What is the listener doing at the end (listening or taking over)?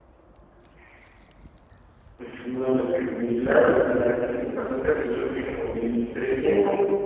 taking over